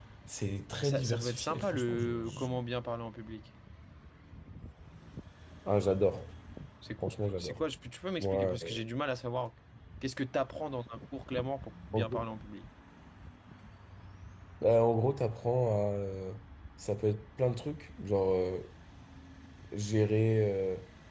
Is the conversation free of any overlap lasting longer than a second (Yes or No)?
No